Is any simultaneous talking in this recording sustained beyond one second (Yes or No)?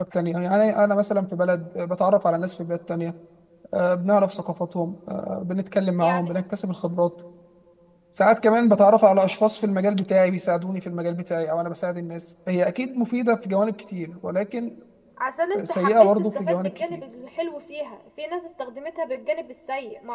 Yes